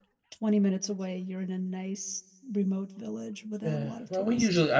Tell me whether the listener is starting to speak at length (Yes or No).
Yes